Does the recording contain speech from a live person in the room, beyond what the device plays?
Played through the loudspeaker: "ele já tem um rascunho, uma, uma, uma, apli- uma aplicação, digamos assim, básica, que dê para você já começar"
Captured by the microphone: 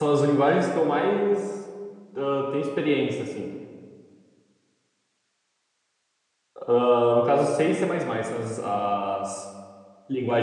Yes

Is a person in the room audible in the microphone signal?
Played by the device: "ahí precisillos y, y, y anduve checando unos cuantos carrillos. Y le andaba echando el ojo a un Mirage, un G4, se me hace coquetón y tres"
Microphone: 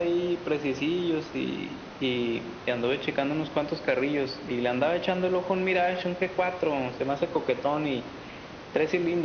No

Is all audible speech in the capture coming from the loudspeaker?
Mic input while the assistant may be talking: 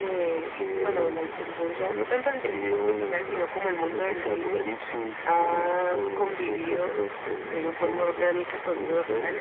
Yes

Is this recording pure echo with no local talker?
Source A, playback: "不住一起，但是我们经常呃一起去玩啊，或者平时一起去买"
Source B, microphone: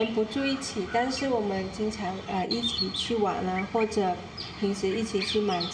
Yes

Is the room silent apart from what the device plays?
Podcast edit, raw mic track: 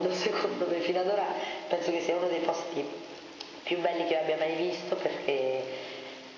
Yes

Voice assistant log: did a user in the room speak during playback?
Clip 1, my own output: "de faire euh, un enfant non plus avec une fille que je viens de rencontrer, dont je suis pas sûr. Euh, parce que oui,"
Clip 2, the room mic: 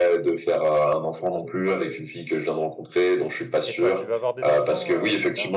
Yes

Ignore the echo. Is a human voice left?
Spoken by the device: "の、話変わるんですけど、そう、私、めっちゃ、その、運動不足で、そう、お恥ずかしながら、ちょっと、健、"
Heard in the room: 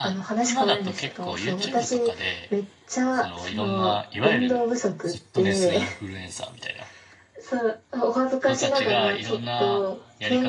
Yes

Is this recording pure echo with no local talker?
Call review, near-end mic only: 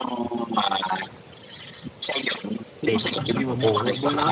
No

